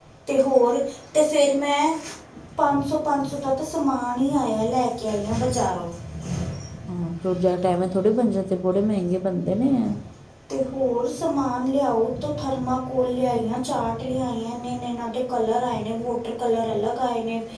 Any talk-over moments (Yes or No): No